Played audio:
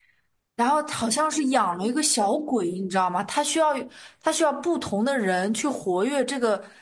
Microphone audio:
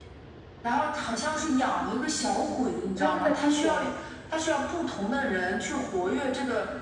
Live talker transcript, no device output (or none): 嗯，它是在中国吗？